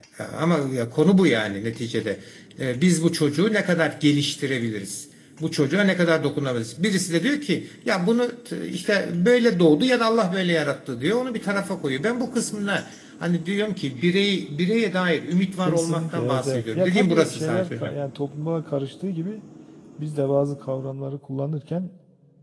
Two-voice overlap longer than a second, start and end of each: 15.7-17.9

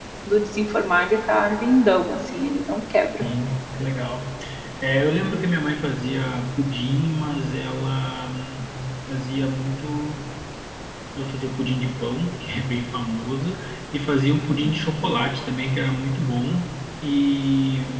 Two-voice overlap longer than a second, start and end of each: none

